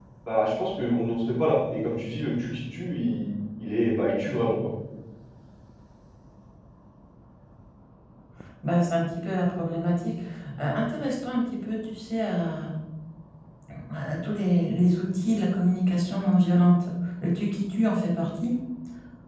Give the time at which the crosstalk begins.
none

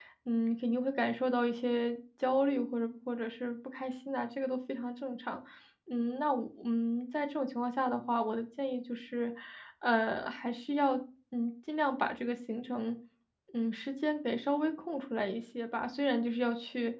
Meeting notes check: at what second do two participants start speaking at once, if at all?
none

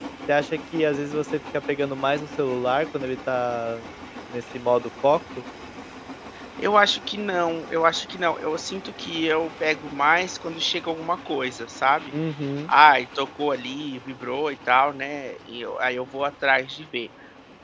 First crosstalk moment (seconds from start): none

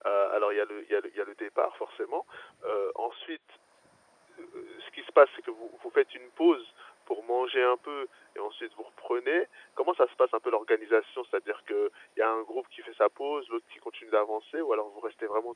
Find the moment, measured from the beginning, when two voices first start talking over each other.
none

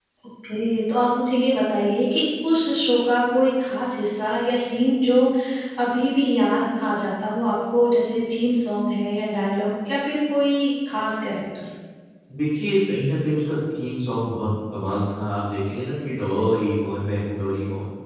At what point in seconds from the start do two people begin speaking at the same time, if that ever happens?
none

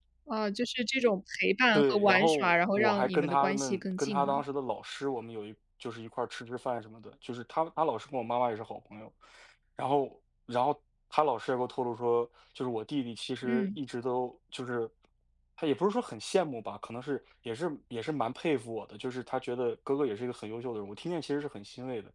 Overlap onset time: 1.7 s

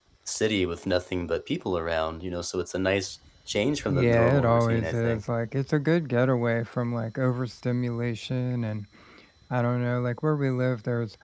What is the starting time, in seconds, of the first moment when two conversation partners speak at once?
3.9 s

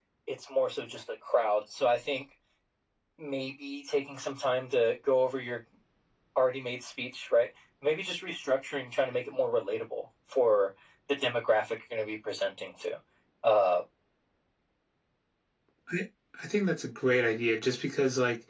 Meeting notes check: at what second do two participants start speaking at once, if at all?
none

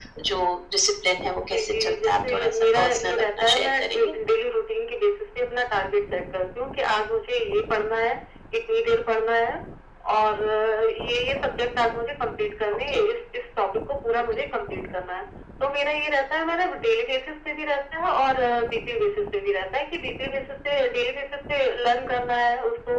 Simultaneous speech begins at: 1.5 s

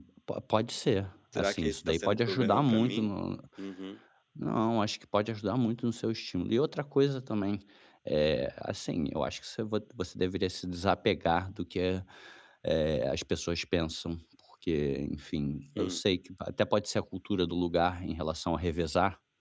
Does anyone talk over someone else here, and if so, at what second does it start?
1.3 s

